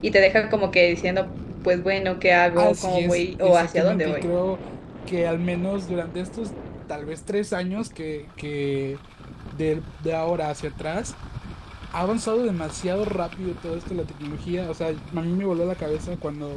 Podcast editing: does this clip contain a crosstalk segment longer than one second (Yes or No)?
Yes